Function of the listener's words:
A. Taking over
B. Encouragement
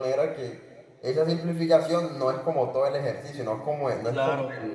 A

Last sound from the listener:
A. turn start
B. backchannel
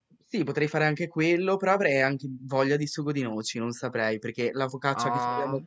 B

